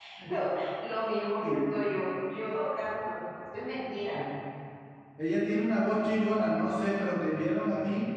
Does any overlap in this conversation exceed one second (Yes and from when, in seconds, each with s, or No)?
No